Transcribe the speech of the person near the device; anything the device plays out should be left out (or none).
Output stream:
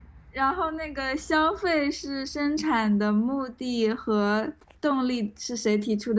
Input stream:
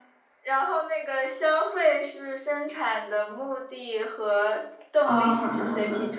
哦，好的，好的。